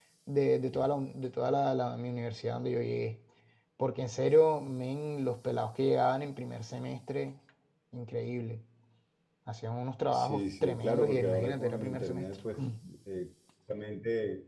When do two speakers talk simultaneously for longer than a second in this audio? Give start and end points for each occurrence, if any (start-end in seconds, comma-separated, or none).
10.1-12.4